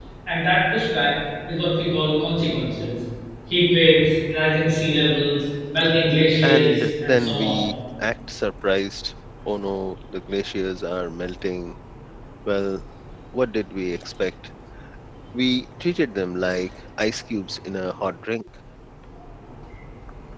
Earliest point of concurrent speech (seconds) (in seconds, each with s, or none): 6.4 s